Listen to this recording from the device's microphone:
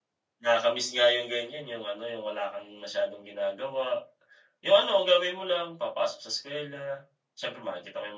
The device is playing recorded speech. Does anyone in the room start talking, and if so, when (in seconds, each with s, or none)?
0.4 s